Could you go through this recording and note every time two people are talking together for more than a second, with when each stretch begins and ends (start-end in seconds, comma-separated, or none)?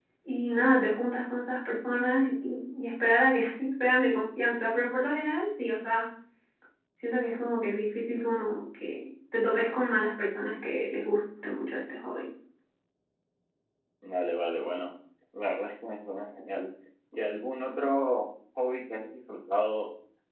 none